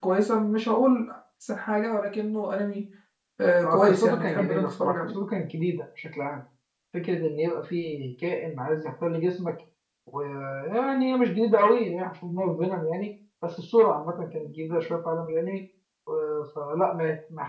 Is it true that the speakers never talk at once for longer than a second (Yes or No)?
No